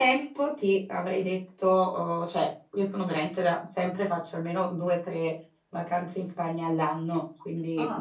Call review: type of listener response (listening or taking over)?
listening